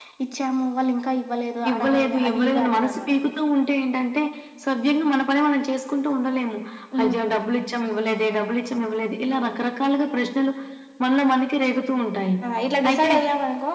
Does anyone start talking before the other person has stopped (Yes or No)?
Yes